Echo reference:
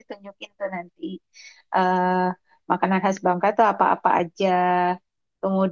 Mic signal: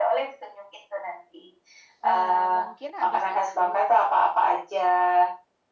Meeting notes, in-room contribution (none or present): present